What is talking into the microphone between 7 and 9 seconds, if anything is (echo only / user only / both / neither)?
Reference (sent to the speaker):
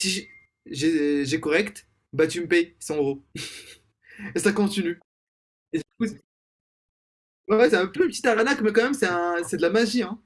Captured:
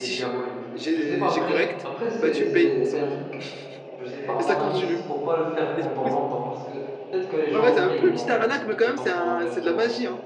both